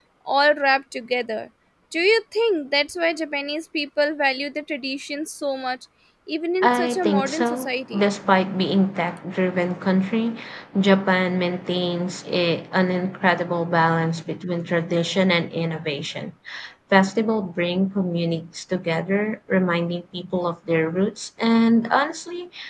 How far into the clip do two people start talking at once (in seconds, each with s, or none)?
6.6 s